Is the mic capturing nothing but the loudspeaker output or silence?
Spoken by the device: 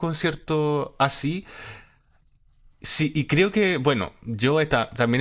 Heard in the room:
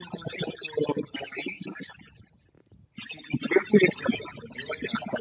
Yes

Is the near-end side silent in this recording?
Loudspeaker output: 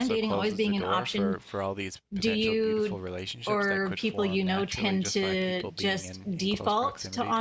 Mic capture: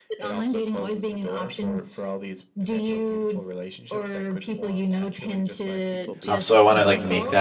No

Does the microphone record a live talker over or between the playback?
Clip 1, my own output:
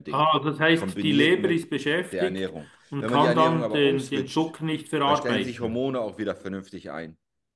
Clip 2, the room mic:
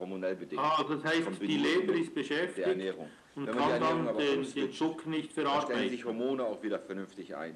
No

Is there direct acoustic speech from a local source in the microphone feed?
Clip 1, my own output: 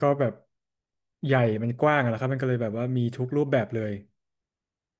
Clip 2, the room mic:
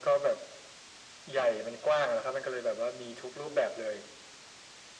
No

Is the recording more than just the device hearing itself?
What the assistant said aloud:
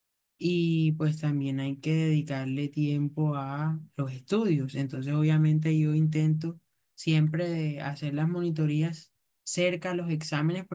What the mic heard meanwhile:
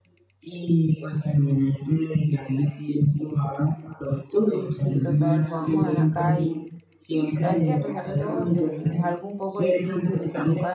Yes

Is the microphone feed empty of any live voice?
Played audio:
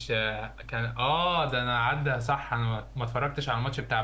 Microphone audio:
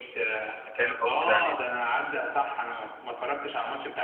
No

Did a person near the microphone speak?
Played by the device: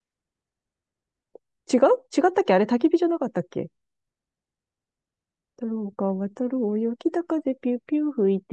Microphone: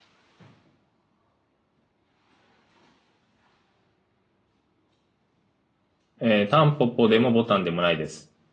Yes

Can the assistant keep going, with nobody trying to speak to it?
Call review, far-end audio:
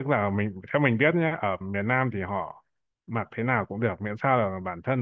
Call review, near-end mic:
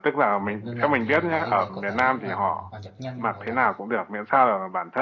No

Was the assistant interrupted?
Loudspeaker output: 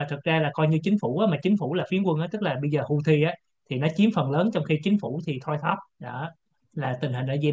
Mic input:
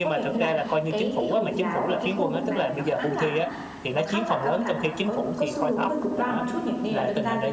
Yes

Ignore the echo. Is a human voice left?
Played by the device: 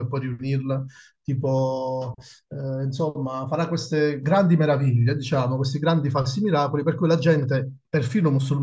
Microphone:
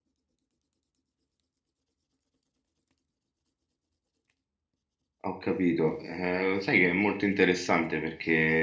Yes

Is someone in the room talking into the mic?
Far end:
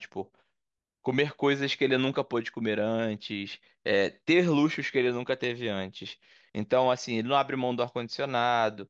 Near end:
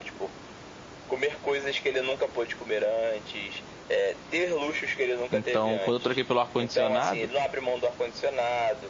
Yes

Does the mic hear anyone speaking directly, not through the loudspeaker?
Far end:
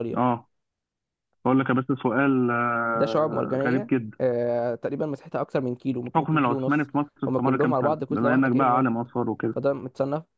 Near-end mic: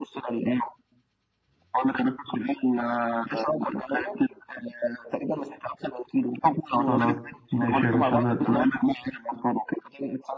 Yes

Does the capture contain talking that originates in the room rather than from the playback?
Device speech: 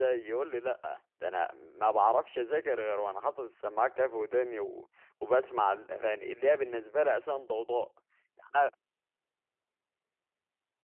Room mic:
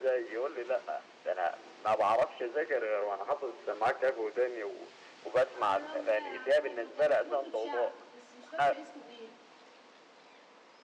Yes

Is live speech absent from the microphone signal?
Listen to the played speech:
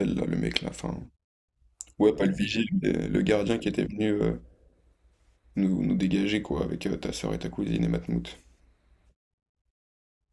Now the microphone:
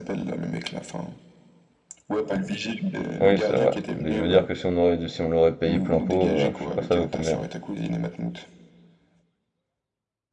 No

